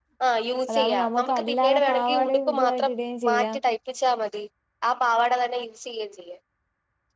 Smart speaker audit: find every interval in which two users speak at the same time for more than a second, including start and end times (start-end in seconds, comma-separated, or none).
0.7-2.9